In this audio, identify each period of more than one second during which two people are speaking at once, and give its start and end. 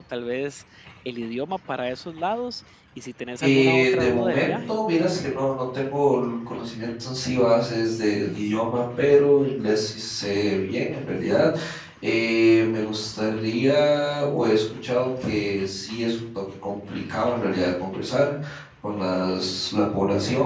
3.4-4.7

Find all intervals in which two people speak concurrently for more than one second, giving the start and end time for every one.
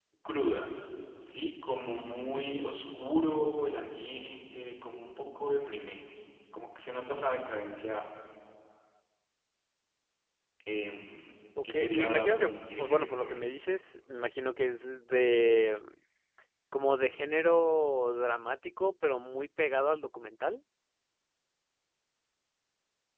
11.6-13.3

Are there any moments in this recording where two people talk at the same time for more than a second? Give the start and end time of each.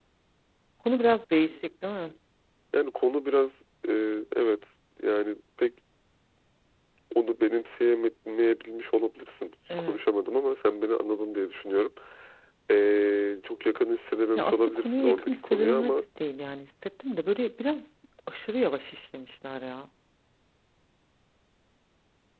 14.3-16.0

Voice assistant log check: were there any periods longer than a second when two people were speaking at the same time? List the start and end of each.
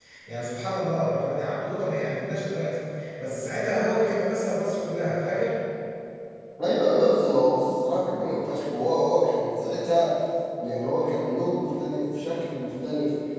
none

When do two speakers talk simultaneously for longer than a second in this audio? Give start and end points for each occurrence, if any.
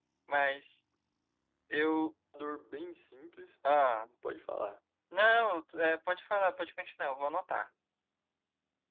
none

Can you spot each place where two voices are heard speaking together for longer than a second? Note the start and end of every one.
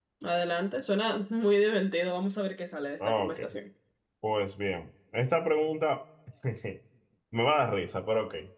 none

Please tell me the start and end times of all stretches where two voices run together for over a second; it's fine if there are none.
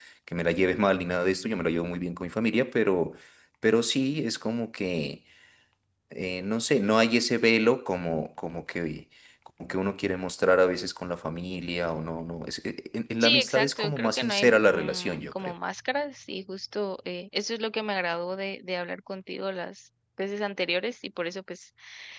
13.2-15.5

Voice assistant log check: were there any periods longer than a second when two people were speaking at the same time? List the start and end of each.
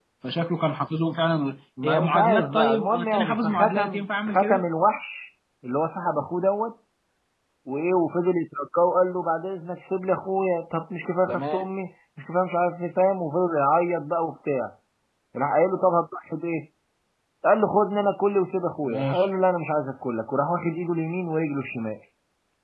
1.8-4.6

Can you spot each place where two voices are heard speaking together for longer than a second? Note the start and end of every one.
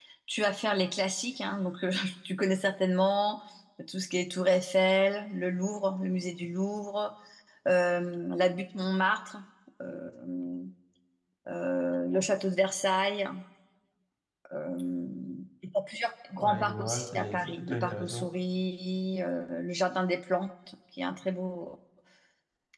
16.4-18.3

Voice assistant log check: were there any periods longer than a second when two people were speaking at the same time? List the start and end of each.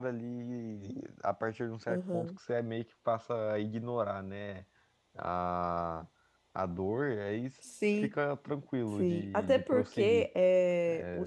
9.0-10.3

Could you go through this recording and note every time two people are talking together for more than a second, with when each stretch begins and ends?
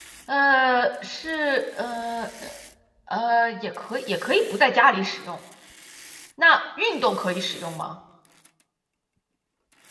none

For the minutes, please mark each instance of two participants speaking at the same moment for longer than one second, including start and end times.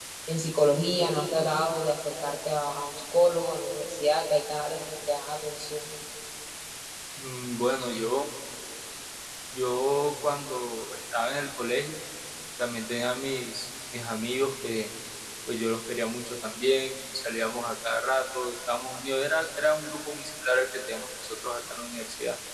none

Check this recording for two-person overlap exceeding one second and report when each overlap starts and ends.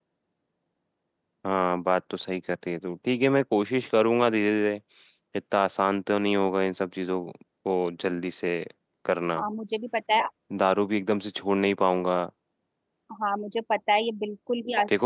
none

